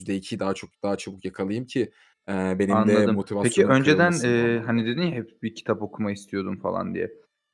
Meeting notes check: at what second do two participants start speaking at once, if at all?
2.7 s

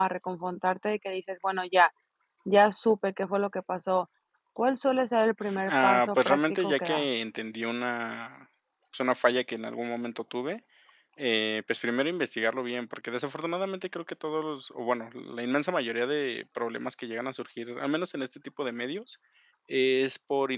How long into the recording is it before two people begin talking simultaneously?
5.5 s

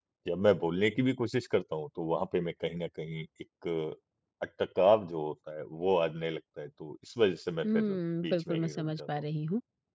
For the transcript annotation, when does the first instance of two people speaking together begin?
7.6 s

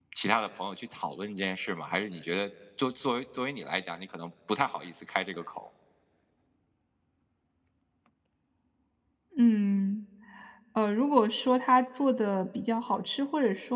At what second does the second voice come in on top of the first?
none

